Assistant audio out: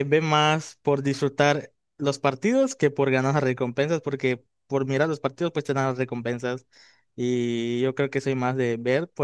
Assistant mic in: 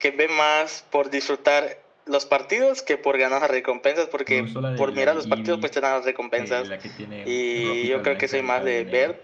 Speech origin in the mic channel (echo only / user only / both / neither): both